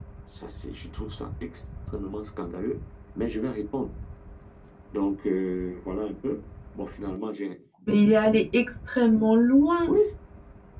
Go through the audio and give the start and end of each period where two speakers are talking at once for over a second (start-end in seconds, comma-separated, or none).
none